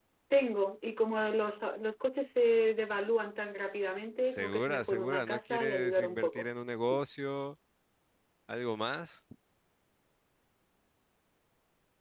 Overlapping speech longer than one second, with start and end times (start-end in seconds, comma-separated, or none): 4.3-6.5